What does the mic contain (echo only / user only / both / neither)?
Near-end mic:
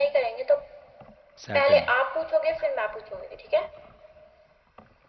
both